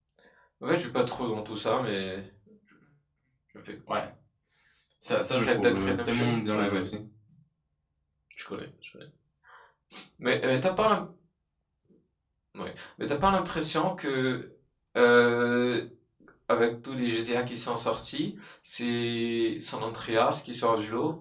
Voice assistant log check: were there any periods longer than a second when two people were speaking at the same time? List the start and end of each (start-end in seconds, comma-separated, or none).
5.4-6.9